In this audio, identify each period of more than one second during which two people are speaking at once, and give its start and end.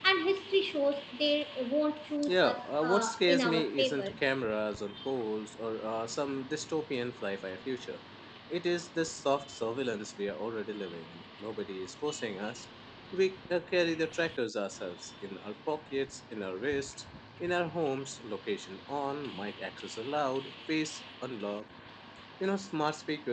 2.2-4.1

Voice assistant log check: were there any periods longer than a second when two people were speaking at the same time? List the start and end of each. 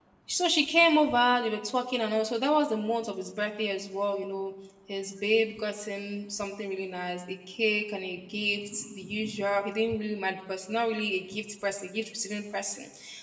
none

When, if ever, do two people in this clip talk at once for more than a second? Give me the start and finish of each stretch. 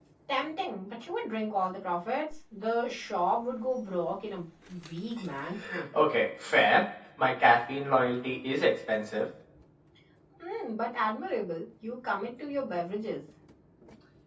none

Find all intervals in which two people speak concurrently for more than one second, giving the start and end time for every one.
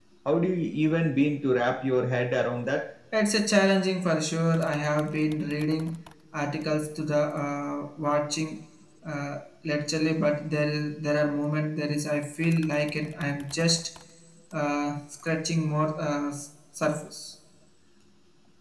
none

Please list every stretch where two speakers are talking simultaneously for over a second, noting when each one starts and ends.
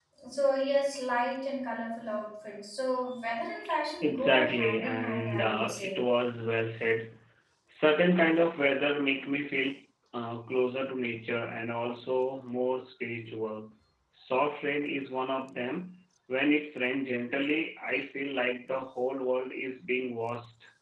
4.0-6.0

